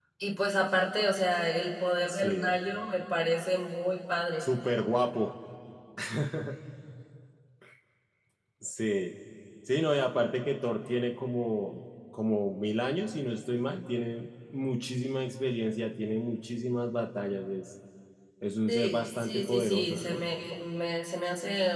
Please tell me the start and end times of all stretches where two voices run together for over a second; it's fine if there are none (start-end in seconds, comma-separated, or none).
18.7-20.2